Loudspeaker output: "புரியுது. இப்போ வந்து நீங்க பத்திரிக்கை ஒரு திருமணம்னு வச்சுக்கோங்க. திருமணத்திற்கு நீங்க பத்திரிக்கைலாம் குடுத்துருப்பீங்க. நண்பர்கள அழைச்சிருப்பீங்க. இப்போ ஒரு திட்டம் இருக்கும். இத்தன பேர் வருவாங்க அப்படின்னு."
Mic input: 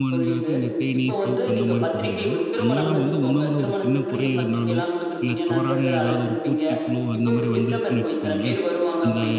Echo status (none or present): present